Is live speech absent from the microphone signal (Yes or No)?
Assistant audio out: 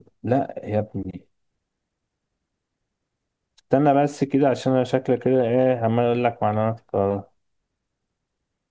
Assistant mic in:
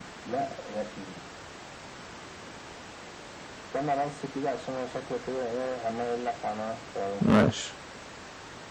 No